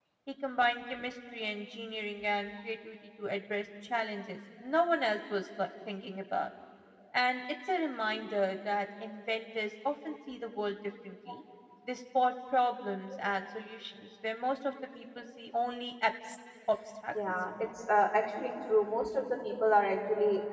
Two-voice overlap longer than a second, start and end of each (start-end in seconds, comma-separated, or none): none